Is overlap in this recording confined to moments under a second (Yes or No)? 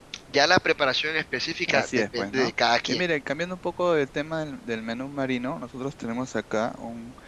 No